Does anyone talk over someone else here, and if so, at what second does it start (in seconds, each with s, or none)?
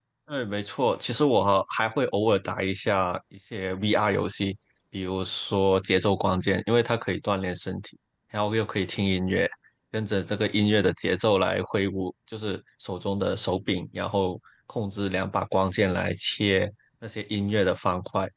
none